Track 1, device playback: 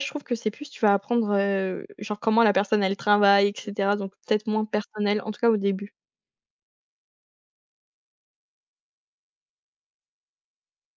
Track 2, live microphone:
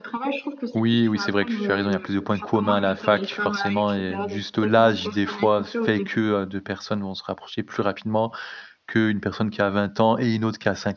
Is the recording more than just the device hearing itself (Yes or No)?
Yes